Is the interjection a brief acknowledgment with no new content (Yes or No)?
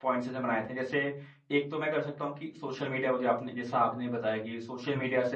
Yes